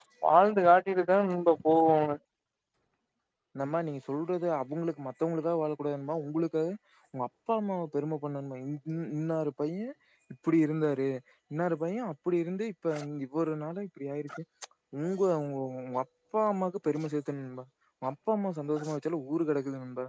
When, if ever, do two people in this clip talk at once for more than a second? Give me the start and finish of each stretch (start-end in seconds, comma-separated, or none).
none